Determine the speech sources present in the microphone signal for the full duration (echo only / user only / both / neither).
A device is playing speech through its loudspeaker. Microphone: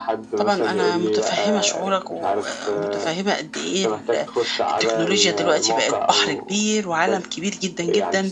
both